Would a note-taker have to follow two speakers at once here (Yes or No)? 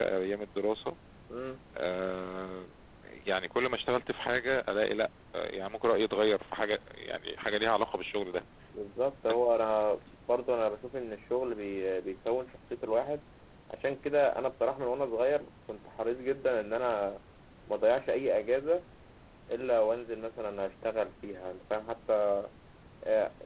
No